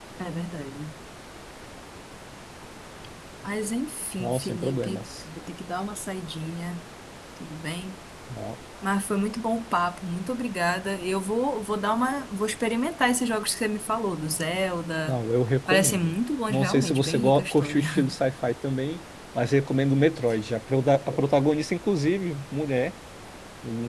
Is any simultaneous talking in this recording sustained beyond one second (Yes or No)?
Yes